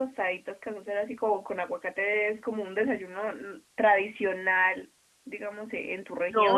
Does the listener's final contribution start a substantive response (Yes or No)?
Yes